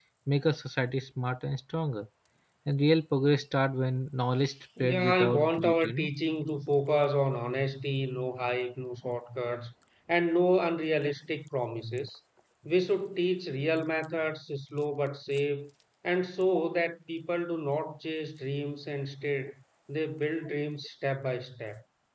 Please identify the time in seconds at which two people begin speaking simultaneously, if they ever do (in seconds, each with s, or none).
4.8 s